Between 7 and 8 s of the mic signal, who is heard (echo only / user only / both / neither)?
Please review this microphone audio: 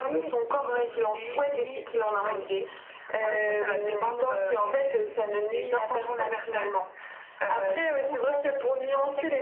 echo only